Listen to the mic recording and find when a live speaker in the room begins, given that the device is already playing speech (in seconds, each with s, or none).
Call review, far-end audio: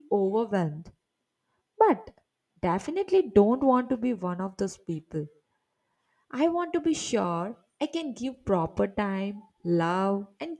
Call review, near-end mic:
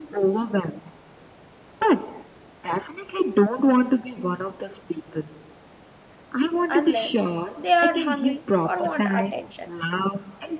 6.7 s